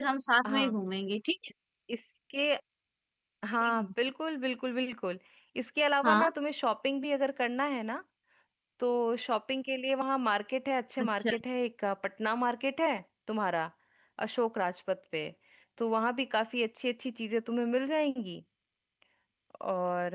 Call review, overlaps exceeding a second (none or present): none